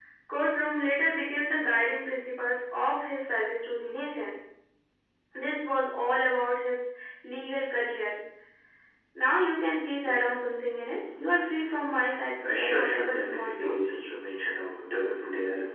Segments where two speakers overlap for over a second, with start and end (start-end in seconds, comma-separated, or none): 12.4-13.7